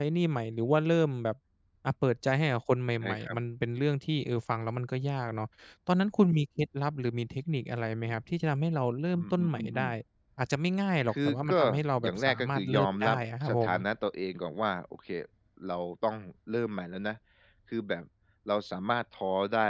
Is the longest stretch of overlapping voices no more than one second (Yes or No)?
No